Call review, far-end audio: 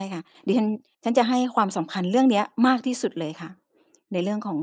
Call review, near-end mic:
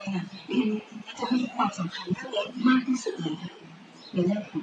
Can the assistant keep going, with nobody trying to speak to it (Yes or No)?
Yes